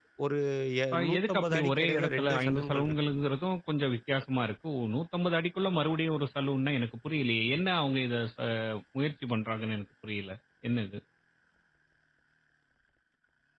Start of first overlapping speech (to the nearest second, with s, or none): 1 s